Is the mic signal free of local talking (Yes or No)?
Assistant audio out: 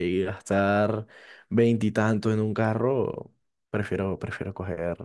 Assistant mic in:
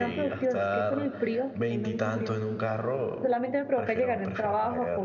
No